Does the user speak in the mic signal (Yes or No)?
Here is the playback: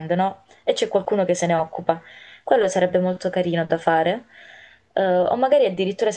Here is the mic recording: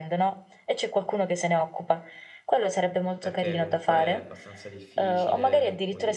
Yes